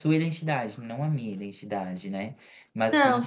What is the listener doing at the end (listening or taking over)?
listening